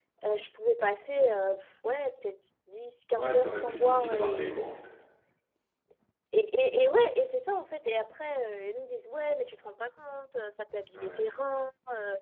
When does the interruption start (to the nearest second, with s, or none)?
3 s